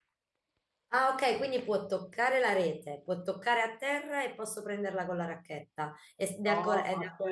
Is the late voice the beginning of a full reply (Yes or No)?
Yes